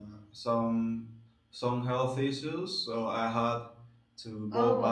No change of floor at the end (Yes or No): Yes